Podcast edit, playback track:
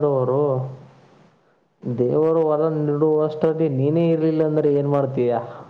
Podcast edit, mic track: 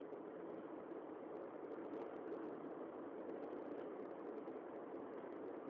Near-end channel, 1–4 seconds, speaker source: neither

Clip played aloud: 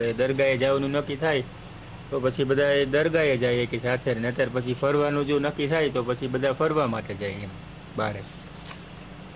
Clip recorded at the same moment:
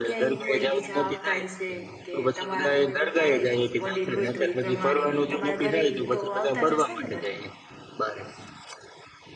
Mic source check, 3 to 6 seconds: both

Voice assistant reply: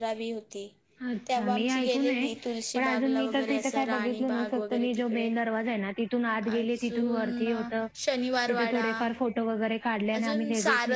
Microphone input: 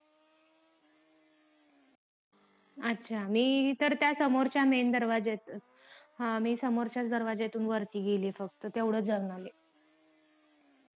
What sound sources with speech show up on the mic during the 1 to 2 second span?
neither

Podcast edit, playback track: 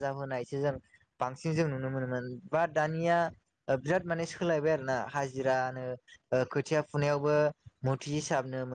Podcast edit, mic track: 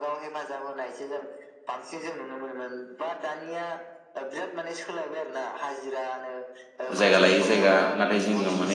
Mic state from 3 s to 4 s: echo only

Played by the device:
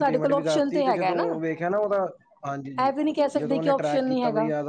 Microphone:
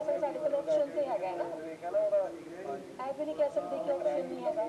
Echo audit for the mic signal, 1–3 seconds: both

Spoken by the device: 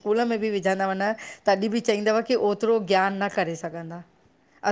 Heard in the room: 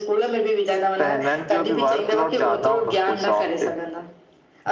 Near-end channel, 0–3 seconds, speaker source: both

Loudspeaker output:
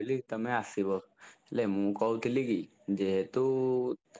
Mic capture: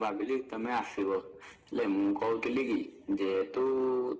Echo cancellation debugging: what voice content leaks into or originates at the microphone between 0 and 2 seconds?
echo only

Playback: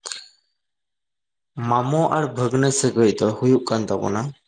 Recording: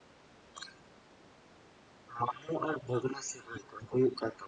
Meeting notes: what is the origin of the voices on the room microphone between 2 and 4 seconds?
echo only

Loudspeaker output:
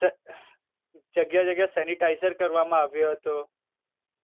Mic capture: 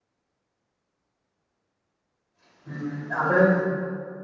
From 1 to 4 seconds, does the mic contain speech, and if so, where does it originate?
user only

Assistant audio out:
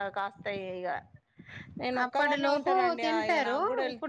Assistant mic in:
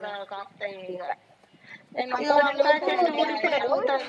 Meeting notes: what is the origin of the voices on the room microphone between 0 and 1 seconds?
echo only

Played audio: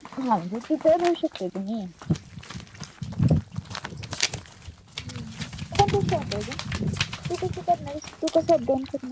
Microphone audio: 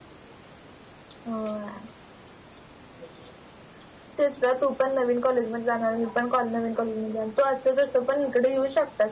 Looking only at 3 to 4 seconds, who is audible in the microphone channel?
neither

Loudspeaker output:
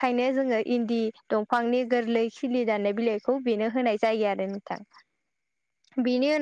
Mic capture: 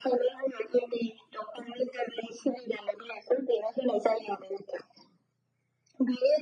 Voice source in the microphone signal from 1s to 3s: echo only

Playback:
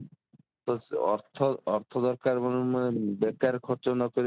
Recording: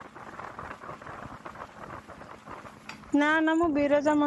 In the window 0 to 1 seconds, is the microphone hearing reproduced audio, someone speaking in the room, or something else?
neither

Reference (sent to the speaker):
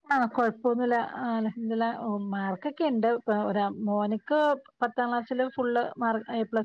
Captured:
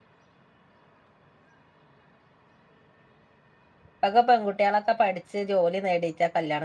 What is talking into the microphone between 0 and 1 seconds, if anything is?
neither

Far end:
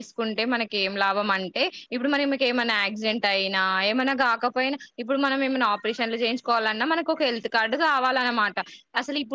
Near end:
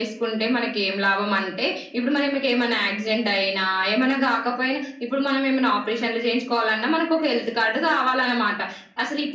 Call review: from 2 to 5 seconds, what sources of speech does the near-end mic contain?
echo only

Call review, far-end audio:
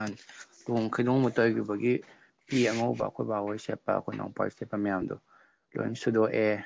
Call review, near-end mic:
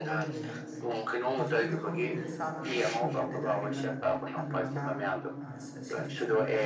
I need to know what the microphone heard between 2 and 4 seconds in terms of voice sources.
both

